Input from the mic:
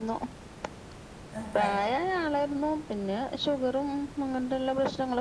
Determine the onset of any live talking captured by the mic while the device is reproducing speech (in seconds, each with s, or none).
1.4 s